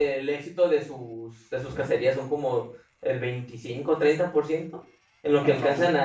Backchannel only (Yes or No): Yes